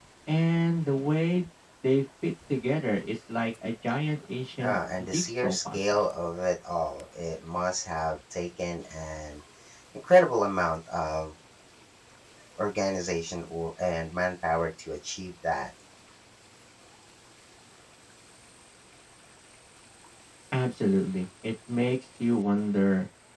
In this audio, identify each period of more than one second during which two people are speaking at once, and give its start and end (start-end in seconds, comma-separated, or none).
4.6-6.0